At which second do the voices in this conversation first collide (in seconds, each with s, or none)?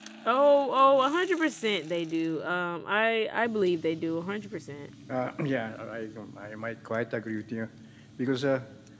none